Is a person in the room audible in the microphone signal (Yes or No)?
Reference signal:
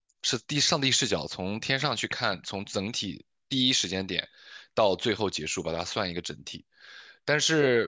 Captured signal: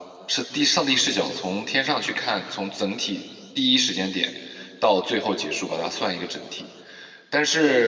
No